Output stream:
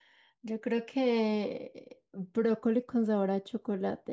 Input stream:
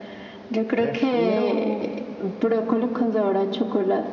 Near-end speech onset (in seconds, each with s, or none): 0.8 s